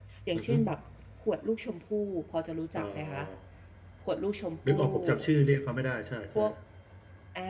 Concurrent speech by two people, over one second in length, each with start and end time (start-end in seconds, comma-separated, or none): none